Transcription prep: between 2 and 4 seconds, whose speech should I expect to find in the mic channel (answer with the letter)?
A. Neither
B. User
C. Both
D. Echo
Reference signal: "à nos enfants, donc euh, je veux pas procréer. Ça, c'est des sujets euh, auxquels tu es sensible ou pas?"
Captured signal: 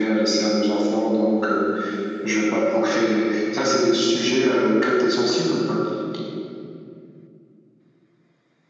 D